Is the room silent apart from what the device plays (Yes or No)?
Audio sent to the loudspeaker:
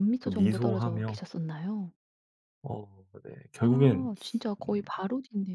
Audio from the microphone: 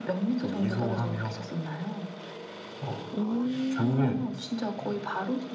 No